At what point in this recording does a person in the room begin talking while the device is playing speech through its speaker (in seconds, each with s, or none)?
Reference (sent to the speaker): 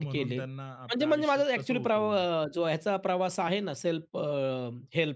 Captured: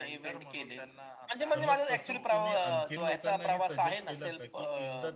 1.5 s